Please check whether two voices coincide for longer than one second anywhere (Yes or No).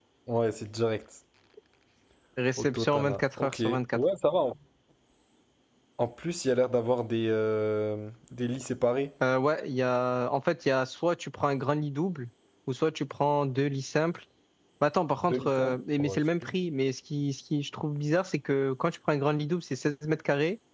Yes